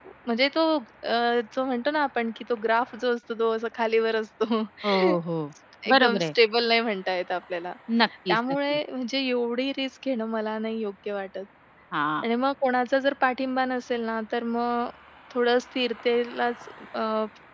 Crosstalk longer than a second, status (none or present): none